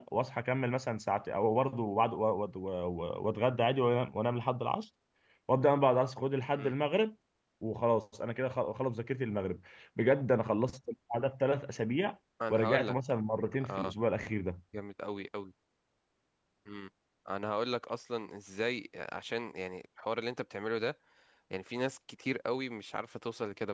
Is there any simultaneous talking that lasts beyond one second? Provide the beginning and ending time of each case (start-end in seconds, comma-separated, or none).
none